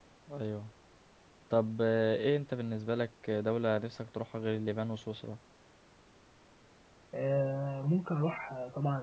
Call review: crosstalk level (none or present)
none